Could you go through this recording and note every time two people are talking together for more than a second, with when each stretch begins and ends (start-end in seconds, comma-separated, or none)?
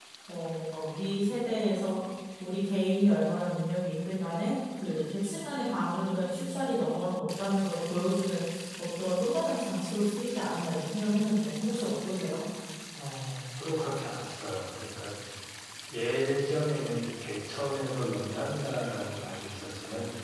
none